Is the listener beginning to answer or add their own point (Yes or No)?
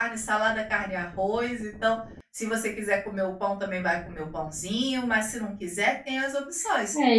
Yes